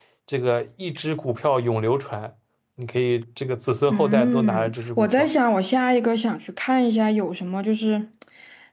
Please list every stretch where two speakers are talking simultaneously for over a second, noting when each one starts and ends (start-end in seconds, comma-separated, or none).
3.9-5.3